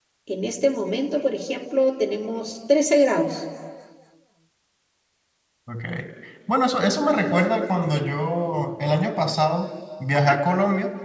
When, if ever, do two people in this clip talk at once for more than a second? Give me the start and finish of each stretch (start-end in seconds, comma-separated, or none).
none